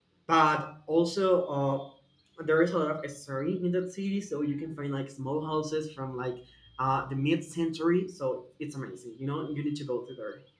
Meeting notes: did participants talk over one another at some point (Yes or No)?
No